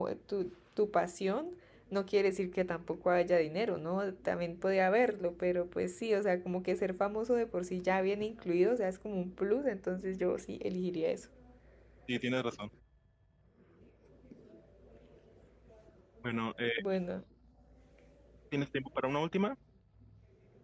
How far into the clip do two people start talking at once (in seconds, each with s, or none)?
none